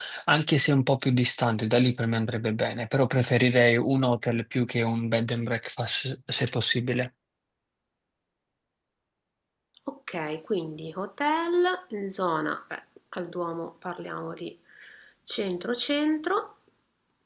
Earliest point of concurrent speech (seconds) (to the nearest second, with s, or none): none